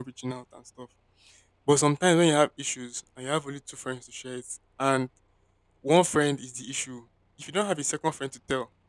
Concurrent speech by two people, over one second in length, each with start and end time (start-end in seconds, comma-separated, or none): none